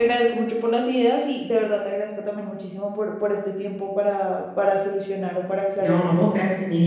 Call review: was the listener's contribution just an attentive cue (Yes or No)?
No